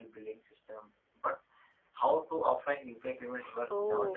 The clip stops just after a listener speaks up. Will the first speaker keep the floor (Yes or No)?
No